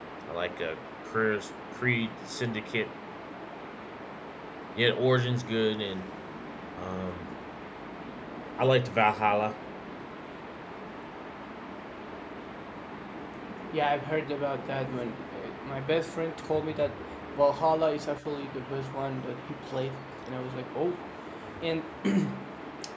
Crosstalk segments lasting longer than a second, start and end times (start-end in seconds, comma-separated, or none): none